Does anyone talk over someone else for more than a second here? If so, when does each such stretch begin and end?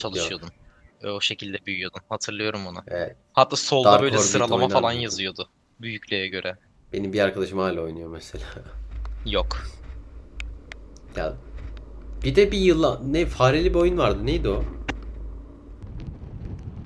3.8-5.2

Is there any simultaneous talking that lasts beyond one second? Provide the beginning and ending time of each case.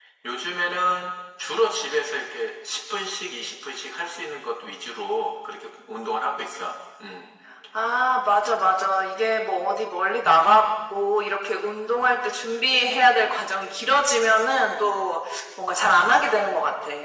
none

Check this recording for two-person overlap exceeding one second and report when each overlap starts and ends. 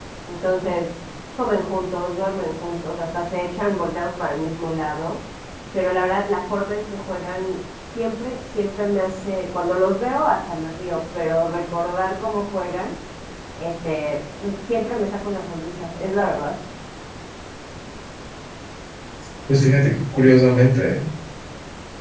none

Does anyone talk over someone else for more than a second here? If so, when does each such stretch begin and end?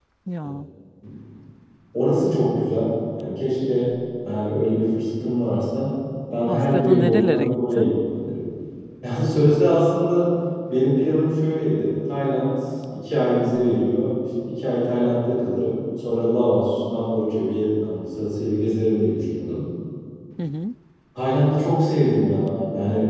6.5-8.0

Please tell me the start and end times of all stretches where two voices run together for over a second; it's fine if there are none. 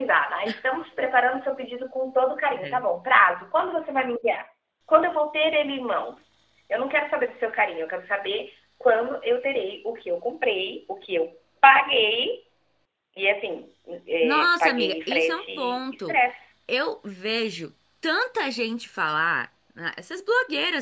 14.2-16.2

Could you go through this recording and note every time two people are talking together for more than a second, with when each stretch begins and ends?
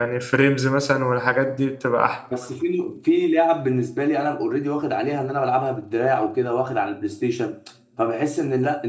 none

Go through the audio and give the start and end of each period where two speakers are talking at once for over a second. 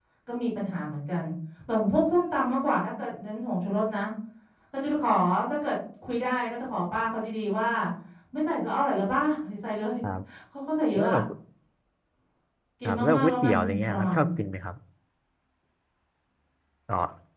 12.8-14.2

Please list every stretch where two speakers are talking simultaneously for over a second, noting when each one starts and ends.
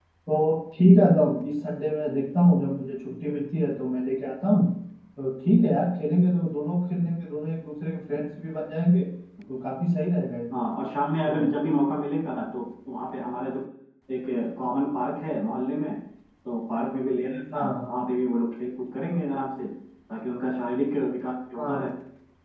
none

